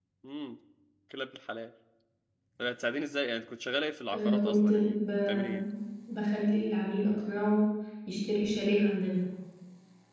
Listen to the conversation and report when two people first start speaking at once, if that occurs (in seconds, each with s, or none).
4.1 s